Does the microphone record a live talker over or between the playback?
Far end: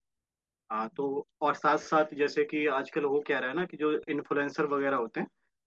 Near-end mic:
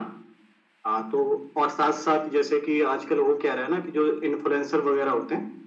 No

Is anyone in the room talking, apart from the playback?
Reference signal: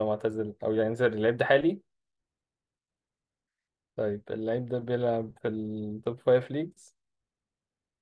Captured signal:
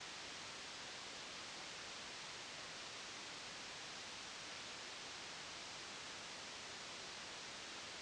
No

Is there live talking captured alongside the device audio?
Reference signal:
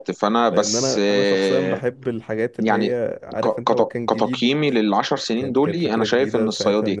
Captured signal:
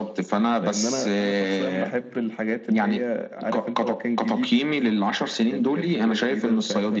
No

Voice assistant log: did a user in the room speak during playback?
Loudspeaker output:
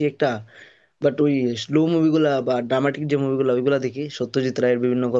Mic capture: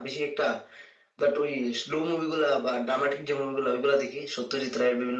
No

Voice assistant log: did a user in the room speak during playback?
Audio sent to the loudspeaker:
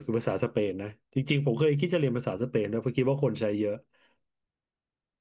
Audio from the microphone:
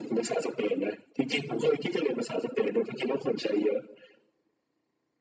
No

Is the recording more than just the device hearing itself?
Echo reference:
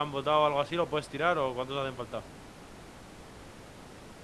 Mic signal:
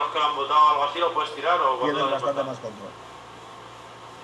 Yes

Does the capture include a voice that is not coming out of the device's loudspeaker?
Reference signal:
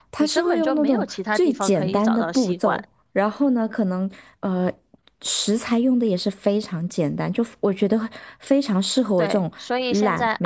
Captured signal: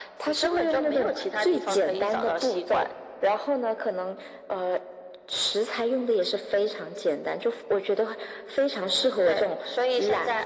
No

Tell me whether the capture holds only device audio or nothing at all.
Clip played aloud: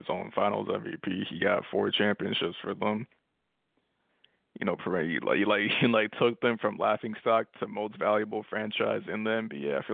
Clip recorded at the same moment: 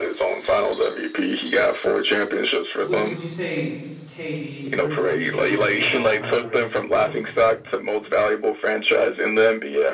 No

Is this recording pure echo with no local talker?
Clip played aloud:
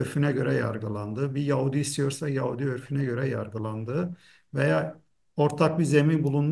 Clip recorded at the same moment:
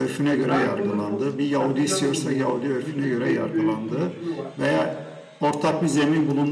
No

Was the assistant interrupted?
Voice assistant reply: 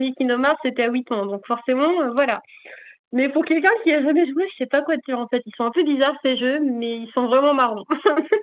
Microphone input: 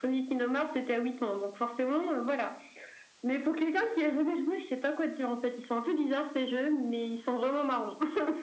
No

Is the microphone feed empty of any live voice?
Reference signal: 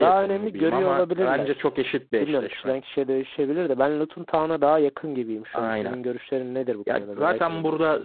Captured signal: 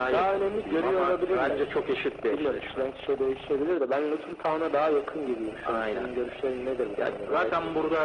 Yes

